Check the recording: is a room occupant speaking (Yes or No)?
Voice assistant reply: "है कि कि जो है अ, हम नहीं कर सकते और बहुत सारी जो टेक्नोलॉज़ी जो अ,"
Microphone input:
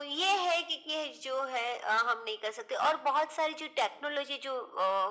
No